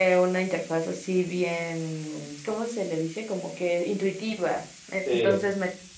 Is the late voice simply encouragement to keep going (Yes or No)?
Yes